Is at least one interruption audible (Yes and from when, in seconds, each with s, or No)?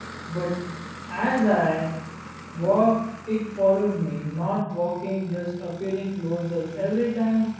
No